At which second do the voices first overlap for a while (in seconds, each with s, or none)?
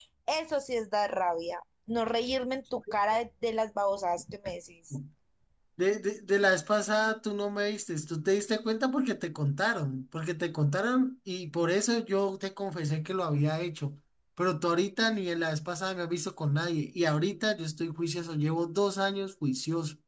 none